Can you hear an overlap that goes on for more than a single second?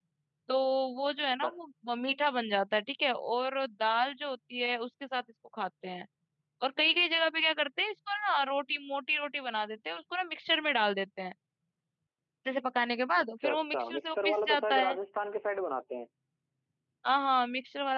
Yes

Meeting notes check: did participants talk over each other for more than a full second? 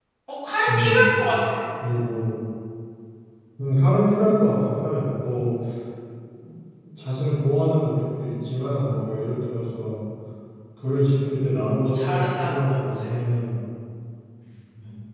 Yes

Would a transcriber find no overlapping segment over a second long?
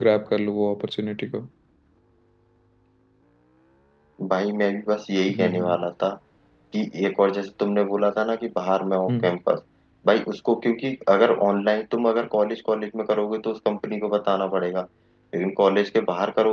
Yes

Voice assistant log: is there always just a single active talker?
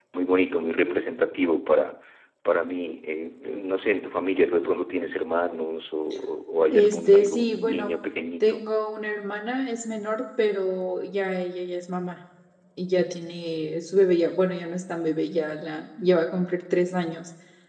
No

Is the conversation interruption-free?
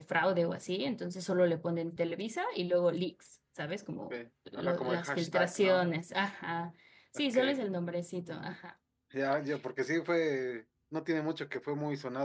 No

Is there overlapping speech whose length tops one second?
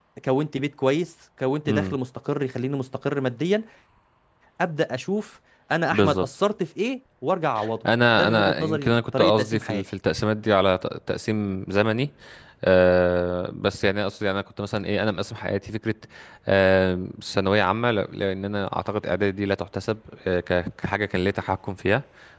Yes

